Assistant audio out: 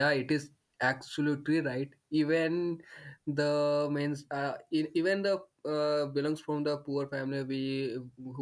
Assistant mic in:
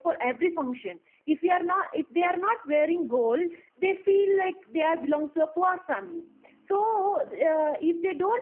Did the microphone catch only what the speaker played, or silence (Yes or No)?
No